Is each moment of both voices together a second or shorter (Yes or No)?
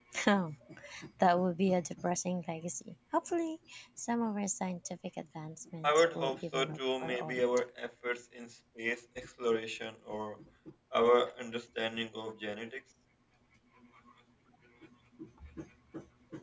No